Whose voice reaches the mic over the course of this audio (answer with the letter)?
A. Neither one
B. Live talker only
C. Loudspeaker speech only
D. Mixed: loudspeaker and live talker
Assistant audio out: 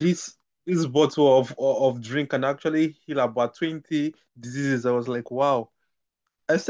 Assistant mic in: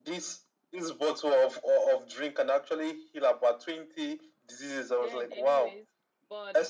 D